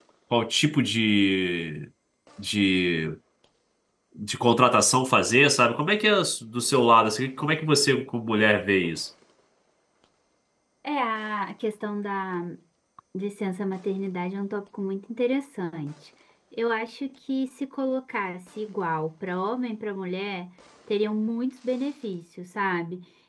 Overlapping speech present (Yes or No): No